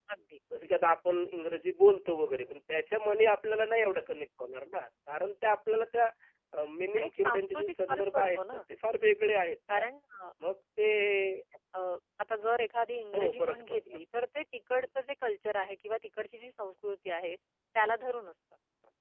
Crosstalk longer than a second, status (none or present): present